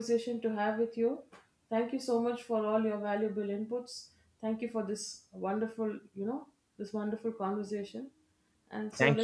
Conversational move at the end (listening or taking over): taking over